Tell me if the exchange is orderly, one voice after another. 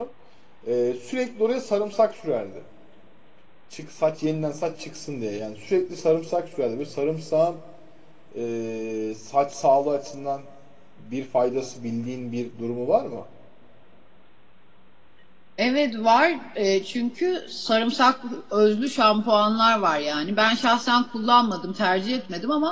Yes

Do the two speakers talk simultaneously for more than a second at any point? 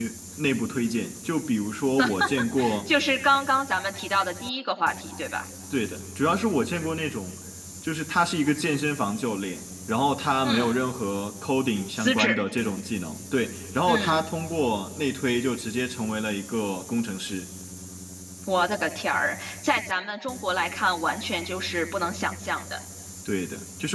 No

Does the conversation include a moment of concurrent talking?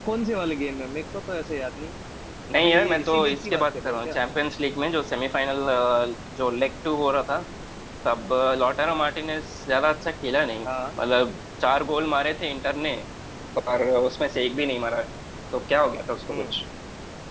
Yes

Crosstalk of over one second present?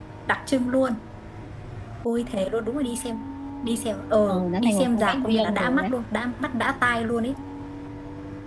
Yes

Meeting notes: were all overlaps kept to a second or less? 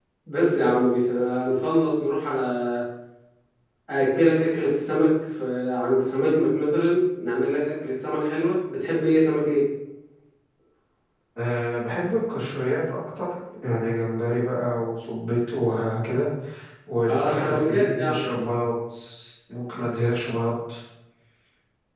No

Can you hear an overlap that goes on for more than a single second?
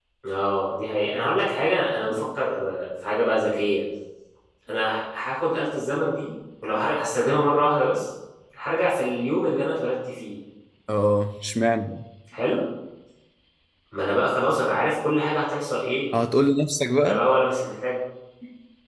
No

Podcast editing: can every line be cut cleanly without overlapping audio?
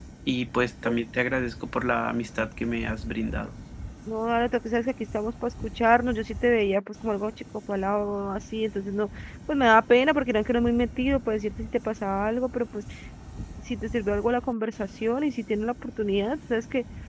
Yes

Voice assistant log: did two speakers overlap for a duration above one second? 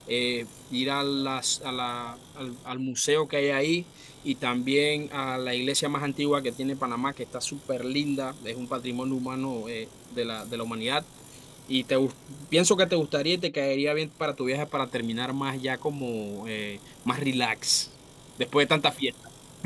No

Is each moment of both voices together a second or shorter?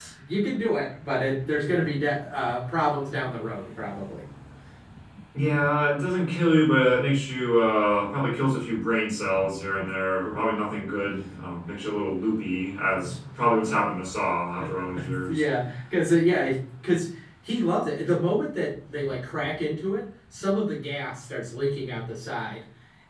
Yes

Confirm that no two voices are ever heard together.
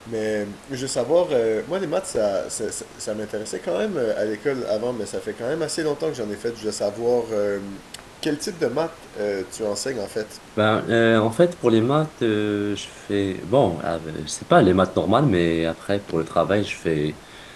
Yes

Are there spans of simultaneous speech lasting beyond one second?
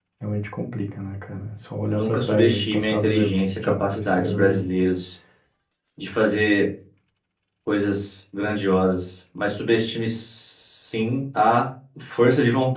Yes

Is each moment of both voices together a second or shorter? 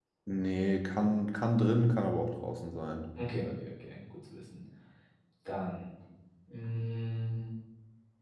Yes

